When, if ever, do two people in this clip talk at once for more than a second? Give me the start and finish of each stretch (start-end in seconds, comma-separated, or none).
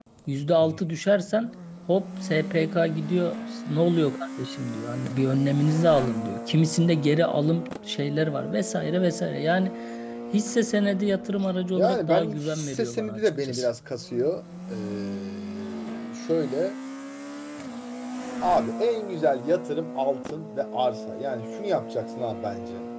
11.8-13.7